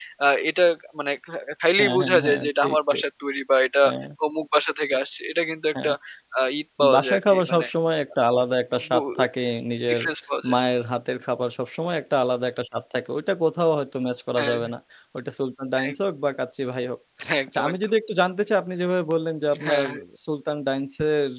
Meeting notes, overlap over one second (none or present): present